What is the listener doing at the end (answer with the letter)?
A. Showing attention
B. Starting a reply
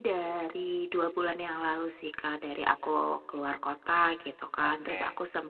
A